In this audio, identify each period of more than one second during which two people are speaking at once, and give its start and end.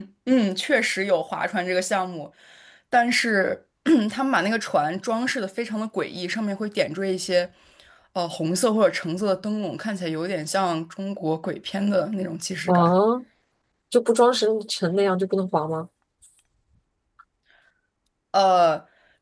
none

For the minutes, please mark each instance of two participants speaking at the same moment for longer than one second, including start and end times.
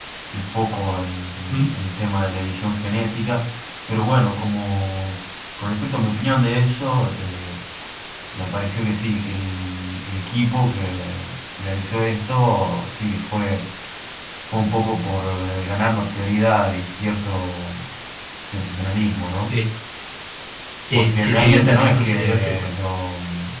20.9-22.7

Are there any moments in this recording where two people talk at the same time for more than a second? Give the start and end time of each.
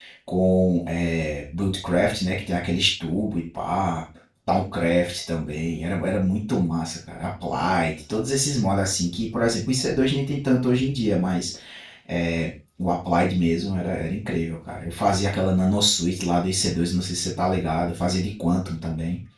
none

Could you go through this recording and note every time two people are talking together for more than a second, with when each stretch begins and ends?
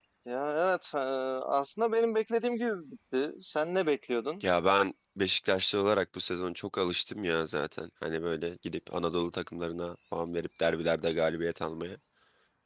none

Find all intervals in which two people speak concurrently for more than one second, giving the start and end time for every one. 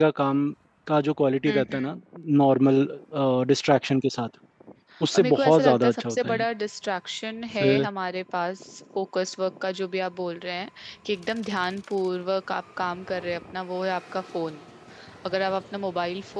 5.2-6.4

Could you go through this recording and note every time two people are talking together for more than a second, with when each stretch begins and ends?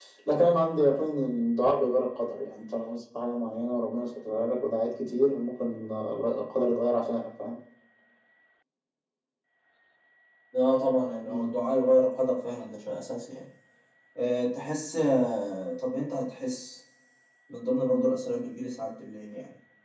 none

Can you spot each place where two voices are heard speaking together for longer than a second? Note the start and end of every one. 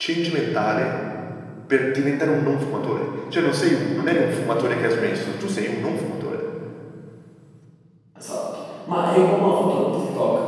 none

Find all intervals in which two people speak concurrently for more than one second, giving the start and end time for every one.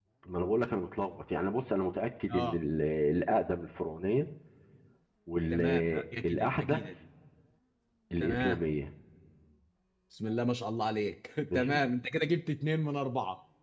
5.5-6.8

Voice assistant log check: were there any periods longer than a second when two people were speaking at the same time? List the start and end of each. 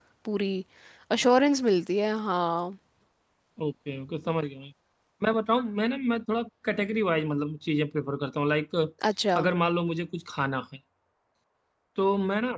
none

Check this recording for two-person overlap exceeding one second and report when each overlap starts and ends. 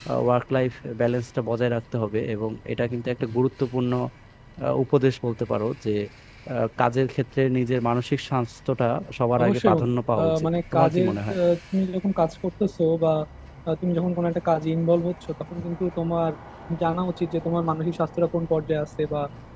9.4-11.4

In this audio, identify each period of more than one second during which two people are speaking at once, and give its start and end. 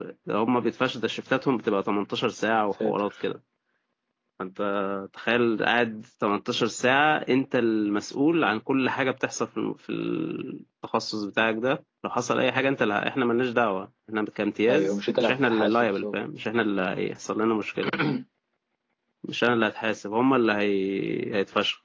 14.7-16.2

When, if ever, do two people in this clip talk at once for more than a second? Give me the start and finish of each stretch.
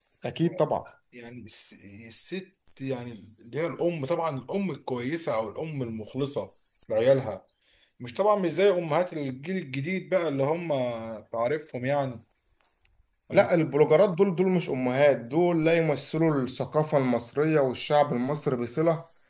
none

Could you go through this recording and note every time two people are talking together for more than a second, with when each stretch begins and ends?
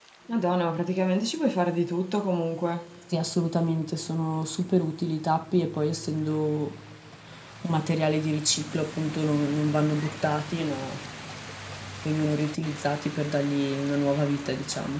none

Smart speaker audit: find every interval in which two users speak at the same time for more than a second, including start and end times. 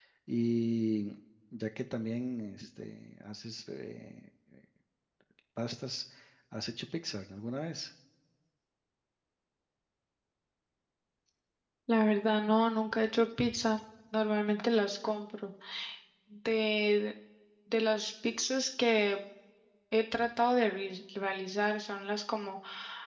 none

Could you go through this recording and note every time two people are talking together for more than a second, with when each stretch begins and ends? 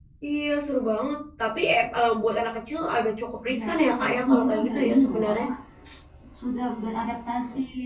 4.0-5.4

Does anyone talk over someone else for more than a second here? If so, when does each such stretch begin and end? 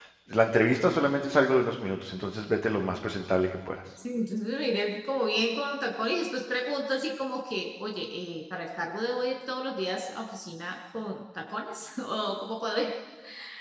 none

